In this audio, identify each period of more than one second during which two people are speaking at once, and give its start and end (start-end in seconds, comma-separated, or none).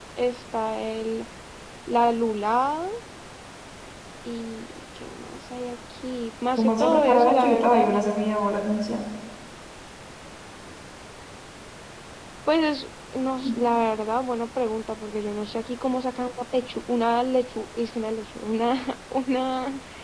6.6-7.9